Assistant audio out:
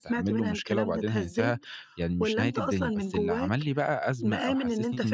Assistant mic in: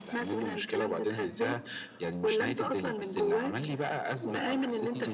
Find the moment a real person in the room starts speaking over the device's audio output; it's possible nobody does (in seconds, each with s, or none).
none